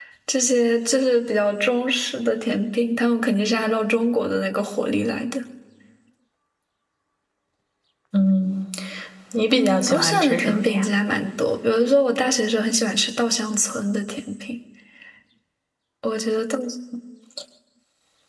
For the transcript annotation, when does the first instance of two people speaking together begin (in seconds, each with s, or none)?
9.5 s